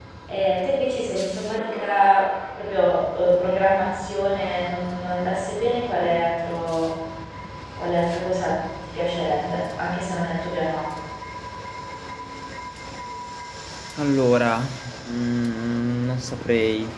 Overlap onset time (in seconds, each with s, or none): none